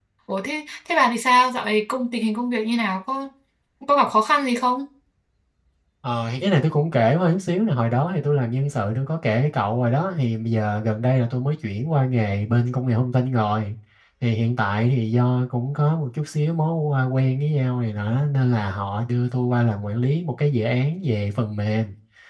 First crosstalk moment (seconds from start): none

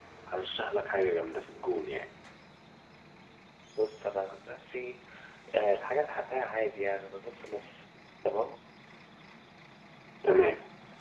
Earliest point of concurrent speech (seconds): none

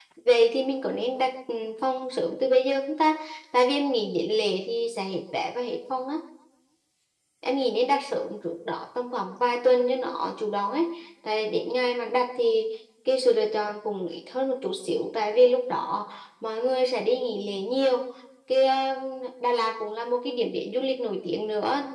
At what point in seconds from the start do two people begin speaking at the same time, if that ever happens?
none

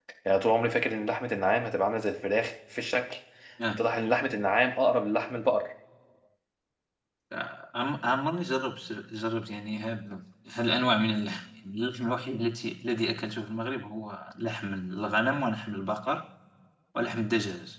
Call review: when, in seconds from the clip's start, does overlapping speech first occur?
none

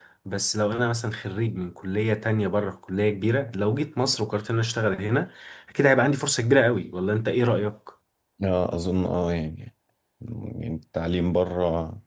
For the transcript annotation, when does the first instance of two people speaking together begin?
none

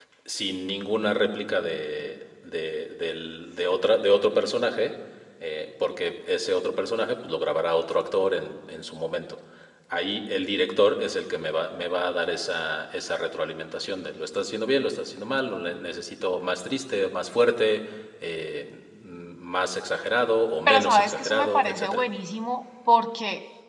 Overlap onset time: 20.7 s

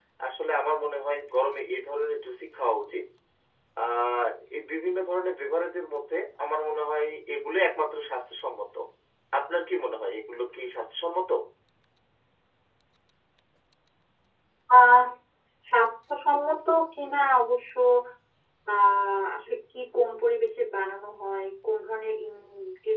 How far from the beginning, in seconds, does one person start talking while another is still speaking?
none

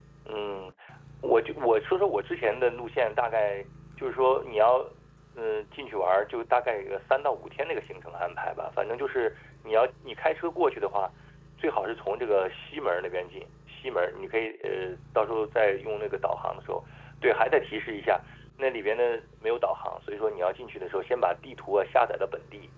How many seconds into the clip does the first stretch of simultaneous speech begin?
none

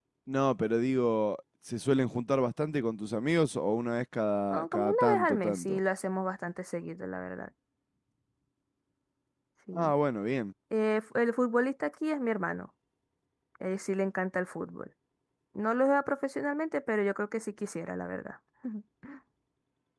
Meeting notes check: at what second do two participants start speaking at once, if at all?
4.5 s

